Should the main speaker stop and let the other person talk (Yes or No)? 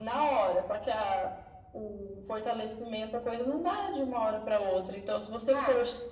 No